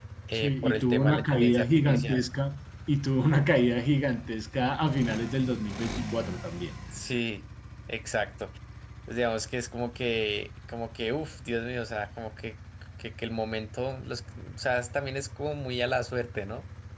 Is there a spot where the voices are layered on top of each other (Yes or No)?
Yes